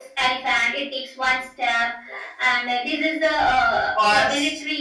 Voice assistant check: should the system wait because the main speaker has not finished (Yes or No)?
Yes